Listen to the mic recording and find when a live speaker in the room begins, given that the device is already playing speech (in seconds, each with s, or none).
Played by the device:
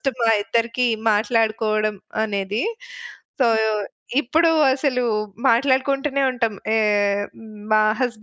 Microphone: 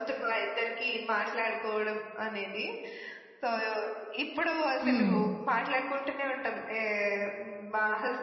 4.8 s